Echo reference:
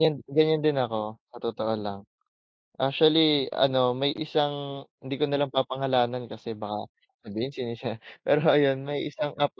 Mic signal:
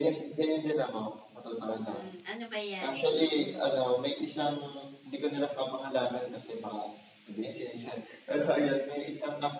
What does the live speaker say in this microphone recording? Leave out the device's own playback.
Hmm, ano ba yan? Mm.

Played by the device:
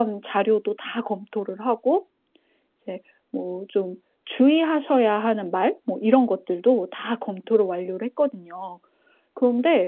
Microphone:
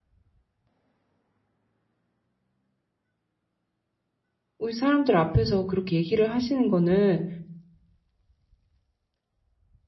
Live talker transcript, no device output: 으 사람들 앞에서 그렇게 얘기를 하시는 거는

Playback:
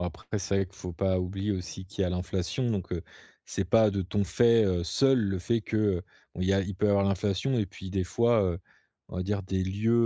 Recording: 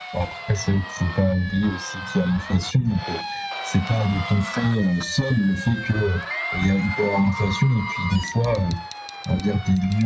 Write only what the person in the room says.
none

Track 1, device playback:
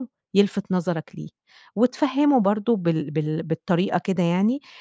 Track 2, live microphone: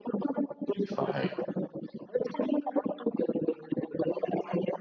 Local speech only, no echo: صحيح.

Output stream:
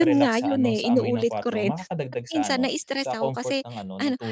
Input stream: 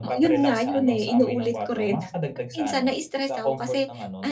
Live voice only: none

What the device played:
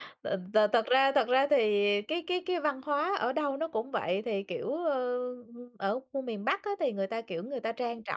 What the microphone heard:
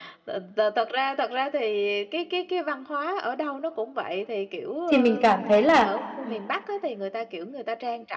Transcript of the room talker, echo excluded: thì mình cảm thấy là, ừm

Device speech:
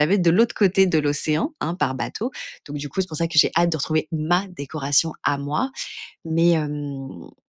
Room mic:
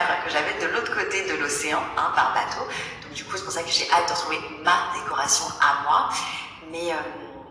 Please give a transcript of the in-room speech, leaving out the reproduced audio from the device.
none

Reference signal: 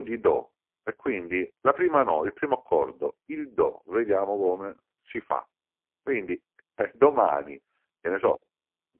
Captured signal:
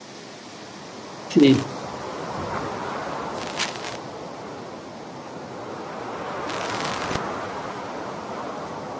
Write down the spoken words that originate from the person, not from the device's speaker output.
sì.

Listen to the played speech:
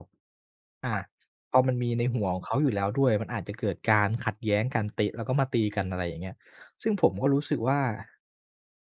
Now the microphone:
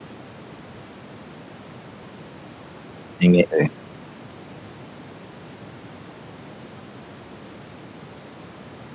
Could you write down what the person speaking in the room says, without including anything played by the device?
ยังไงเอ่ย?

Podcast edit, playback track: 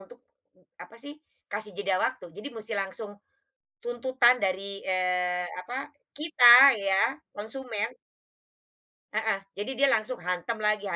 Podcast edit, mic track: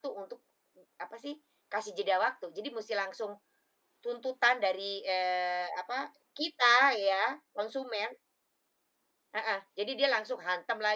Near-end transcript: none

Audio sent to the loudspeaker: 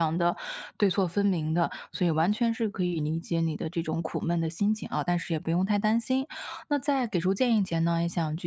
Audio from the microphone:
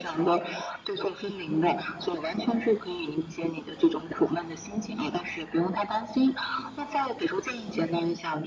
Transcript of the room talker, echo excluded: none

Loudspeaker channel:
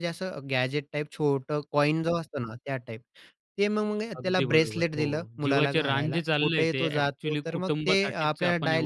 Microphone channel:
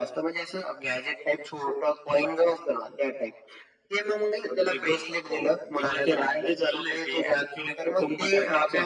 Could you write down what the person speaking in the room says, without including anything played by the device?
none

